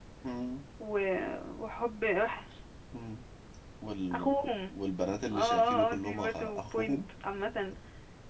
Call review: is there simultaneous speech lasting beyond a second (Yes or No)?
Yes